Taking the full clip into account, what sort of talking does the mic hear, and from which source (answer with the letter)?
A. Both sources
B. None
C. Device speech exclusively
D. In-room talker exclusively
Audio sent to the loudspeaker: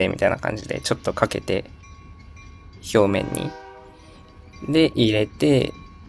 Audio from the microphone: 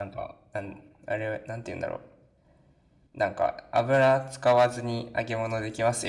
D